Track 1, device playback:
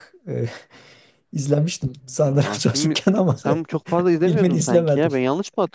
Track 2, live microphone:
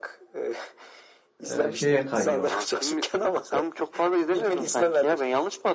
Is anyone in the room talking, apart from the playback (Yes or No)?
Yes